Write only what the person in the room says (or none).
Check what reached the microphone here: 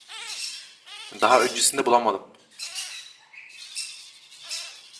Daha öncesinde bulamadım.